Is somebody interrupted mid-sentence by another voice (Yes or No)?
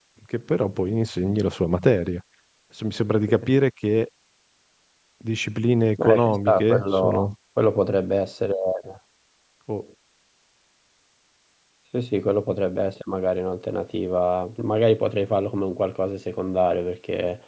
Yes